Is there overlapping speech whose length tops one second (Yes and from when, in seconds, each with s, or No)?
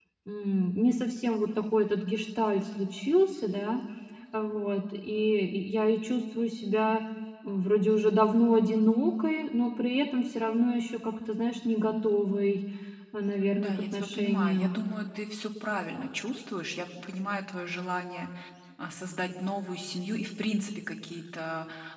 Yes, from 13.6 s